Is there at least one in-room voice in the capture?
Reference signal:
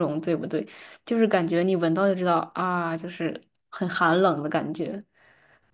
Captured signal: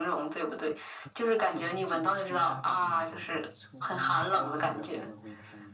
Yes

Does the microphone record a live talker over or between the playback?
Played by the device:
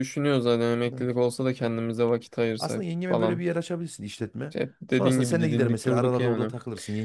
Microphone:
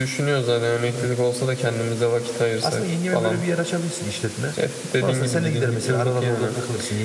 No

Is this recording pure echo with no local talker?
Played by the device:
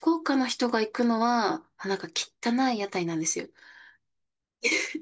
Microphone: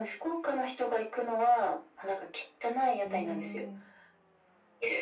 No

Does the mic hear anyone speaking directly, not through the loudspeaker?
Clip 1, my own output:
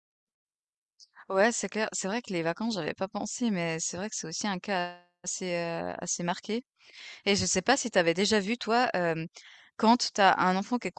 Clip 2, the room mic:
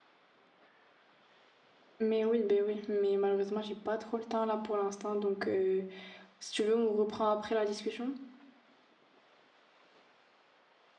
Yes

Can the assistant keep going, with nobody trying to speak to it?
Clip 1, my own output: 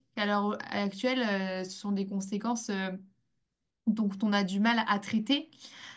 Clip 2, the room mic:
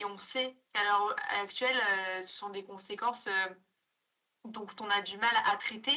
Yes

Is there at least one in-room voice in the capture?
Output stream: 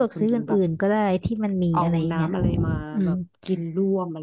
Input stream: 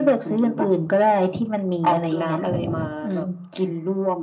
Yes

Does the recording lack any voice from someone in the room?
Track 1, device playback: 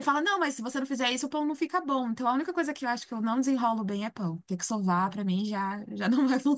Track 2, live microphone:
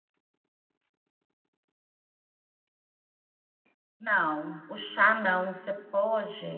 No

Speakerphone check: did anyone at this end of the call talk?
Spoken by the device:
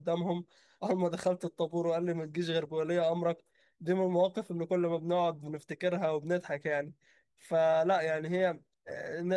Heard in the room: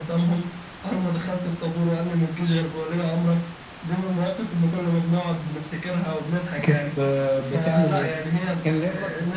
Yes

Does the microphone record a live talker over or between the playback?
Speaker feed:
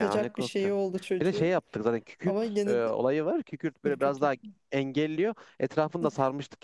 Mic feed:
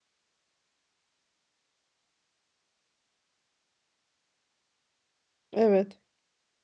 Yes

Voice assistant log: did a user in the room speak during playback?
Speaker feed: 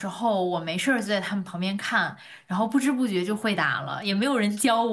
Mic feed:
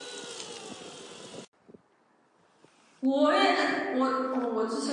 Yes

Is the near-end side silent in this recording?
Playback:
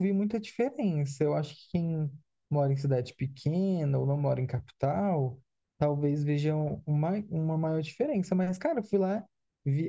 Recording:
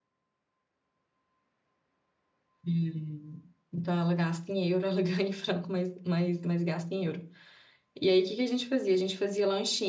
No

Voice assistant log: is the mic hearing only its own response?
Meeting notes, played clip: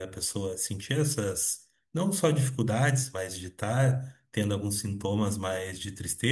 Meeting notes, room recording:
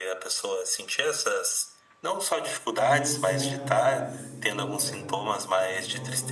No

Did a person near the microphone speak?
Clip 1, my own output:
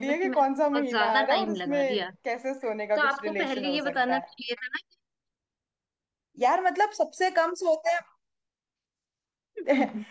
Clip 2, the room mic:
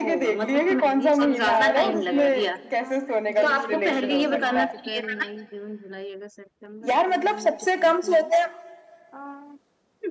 Yes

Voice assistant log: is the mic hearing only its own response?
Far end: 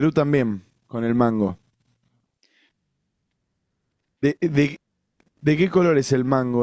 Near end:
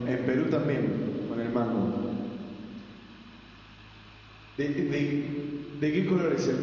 Yes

